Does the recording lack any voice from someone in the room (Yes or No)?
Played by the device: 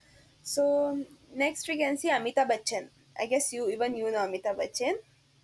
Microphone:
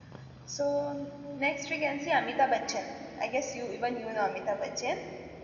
Yes